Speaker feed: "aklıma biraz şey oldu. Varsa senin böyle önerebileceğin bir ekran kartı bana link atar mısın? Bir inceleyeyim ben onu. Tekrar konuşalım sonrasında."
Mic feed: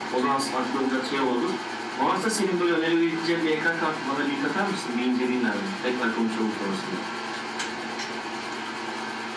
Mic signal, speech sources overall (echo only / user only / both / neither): echo only